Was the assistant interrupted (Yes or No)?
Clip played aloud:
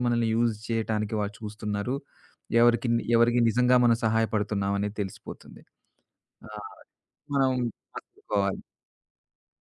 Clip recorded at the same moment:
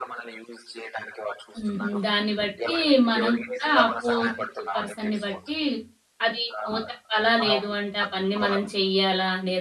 Yes